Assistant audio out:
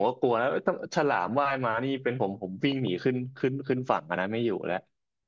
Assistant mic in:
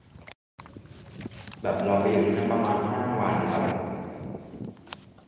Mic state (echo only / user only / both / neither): user only